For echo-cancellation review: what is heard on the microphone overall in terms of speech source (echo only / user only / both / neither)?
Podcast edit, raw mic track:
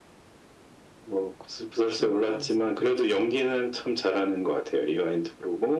both